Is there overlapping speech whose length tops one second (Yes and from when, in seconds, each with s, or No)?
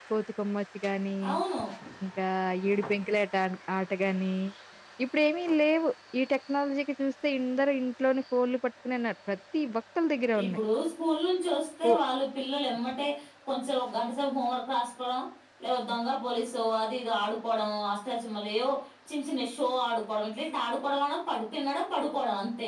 No